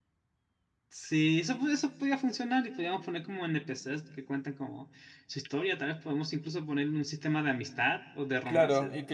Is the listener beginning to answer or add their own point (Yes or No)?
Yes